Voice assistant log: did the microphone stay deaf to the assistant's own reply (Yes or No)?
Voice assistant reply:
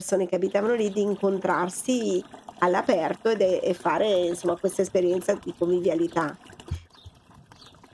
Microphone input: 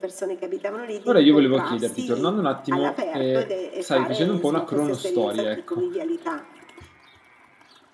No